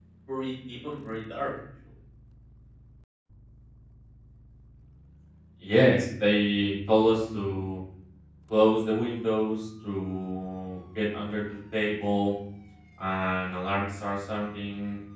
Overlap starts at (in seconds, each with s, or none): none